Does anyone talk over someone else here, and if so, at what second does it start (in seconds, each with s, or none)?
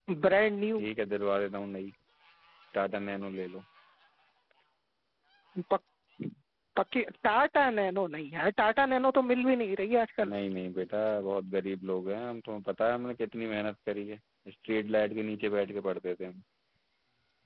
none